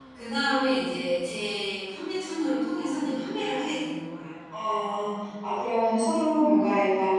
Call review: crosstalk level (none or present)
none